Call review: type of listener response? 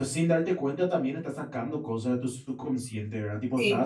listening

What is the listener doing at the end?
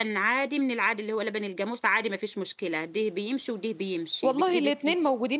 taking over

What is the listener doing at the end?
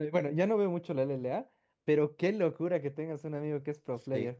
taking over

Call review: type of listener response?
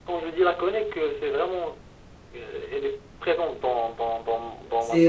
taking over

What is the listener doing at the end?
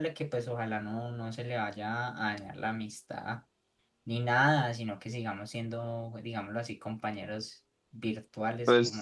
taking over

